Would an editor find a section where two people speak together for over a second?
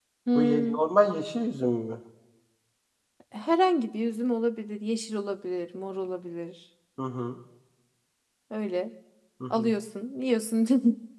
No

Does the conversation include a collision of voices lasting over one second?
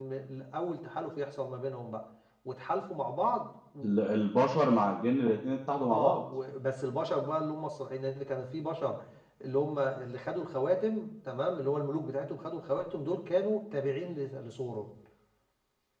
No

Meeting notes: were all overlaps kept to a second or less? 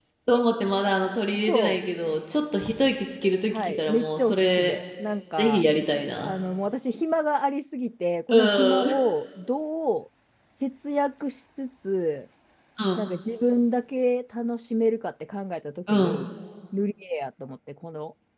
No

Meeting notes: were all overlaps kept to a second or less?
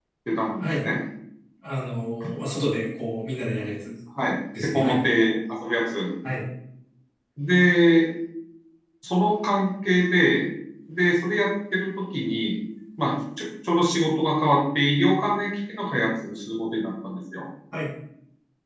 Yes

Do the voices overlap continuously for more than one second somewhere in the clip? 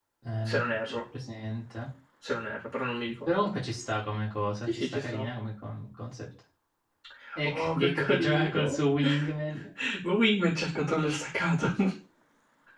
Yes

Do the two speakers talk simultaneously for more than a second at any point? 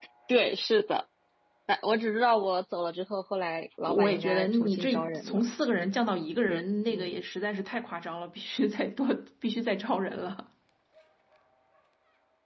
Yes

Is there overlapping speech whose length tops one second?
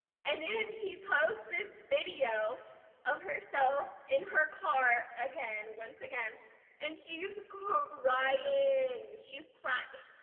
No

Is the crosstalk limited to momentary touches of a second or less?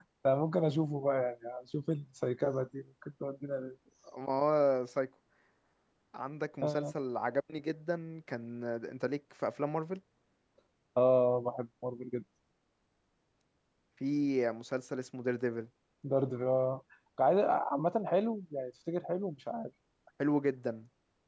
Yes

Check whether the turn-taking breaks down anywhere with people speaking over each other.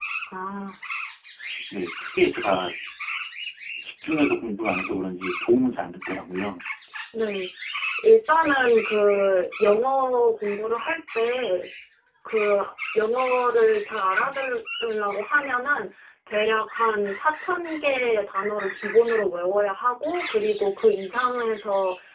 No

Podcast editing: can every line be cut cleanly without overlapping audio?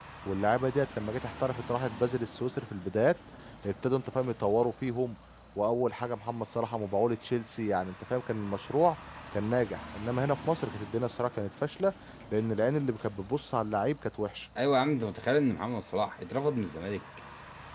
Yes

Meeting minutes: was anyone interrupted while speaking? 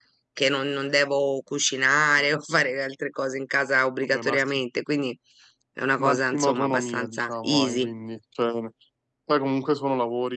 Yes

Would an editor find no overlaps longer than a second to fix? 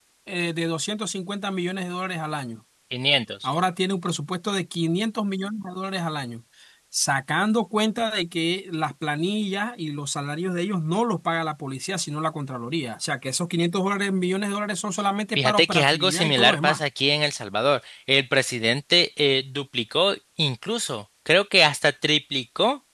No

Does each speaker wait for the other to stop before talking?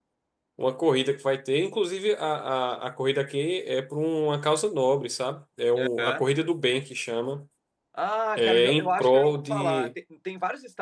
No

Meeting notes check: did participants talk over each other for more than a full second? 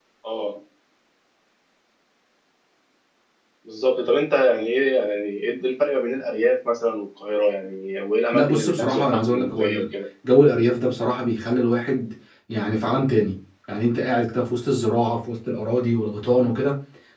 Yes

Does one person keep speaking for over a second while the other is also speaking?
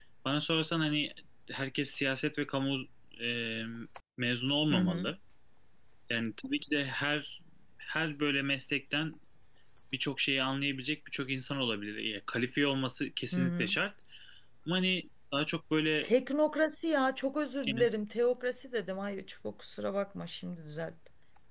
No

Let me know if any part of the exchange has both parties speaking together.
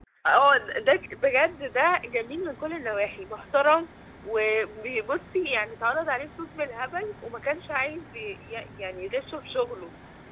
No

